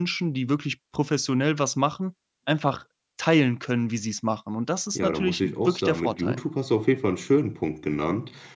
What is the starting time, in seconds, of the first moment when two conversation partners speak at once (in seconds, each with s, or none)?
5.0 s